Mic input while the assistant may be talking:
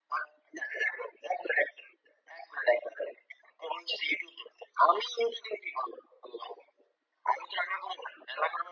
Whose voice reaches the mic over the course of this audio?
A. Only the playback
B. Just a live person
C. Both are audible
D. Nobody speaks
A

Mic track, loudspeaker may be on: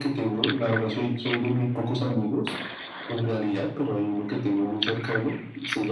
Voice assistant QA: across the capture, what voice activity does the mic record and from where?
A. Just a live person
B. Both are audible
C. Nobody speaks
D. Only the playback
D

